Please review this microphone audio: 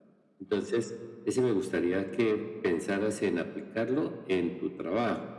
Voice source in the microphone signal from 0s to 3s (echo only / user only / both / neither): echo only